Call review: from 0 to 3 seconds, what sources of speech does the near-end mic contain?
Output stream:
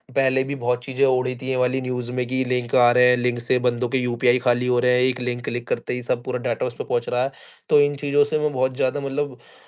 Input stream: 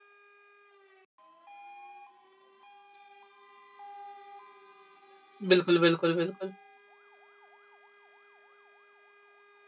neither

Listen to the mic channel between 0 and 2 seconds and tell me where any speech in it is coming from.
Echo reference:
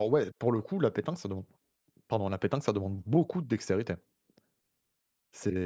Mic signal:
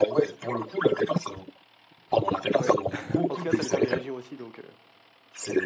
echo only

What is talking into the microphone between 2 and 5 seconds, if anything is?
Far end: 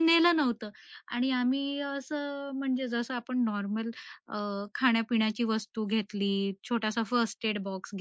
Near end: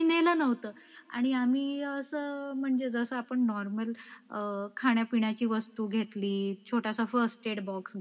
echo only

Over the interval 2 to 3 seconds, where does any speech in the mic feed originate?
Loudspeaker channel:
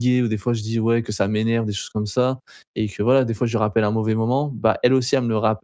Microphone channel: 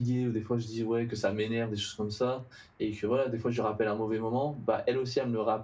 echo only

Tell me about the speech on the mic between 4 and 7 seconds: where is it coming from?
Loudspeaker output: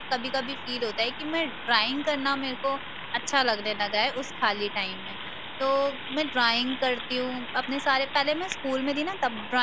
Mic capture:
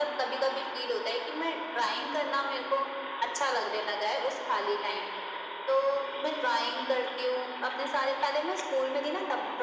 echo only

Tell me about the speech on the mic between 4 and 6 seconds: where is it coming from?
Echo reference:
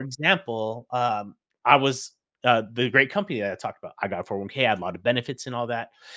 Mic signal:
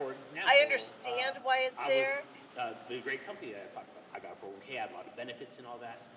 echo only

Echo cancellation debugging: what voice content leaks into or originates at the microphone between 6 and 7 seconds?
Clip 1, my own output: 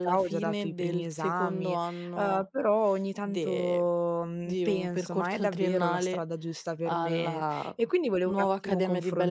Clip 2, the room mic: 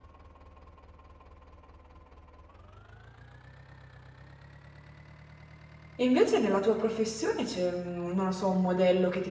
user only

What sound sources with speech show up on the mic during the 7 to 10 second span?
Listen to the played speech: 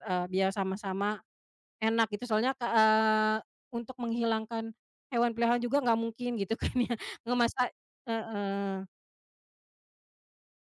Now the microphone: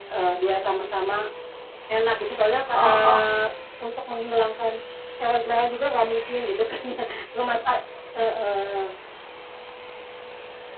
echo only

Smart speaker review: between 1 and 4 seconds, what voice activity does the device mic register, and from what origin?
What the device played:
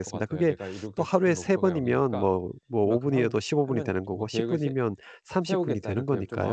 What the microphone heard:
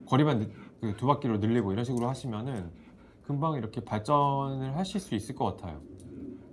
user only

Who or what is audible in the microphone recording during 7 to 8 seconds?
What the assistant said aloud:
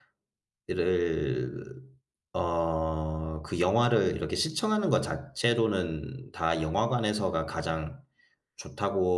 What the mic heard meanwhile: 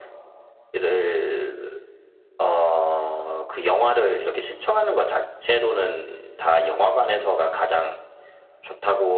echo only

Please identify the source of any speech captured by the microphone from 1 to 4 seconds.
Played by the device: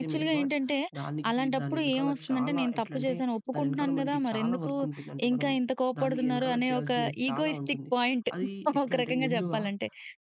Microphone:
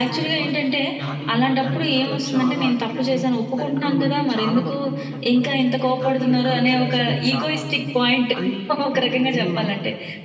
both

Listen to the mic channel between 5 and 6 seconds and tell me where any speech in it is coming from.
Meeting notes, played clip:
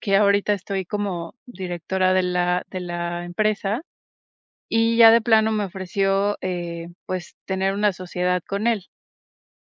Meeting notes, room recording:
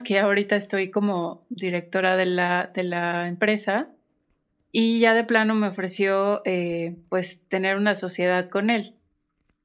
echo only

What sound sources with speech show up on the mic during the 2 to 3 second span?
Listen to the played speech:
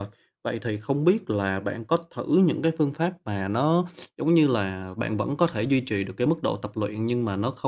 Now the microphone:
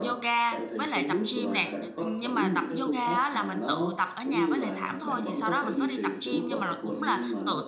both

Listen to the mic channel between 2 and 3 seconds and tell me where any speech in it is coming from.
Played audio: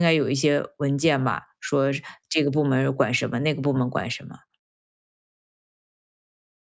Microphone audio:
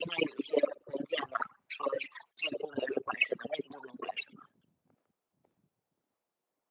echo only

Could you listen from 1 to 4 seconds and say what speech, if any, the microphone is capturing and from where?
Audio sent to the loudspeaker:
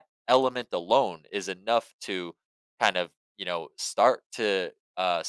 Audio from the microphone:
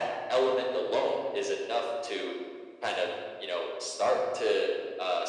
echo only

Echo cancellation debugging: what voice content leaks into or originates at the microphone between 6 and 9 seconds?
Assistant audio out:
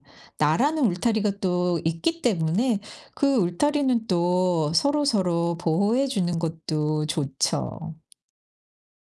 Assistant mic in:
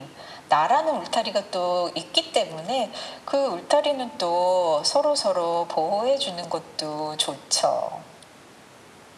echo only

